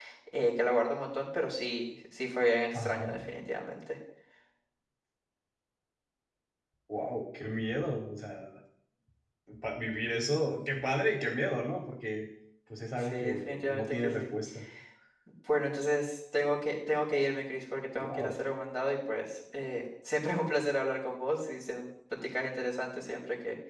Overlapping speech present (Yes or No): Yes